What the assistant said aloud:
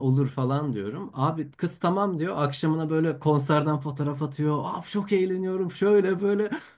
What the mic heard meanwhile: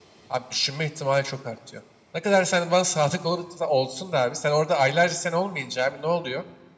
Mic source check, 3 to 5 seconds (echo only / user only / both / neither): user only